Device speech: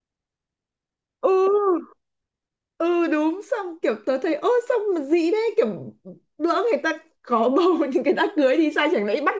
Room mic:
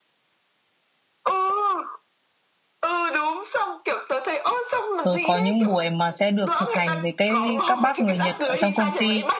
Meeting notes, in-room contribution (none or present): present